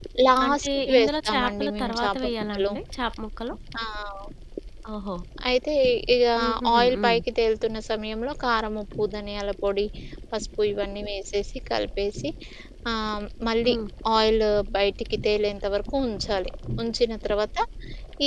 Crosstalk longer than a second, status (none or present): present